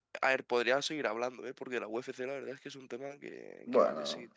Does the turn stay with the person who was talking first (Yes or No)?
No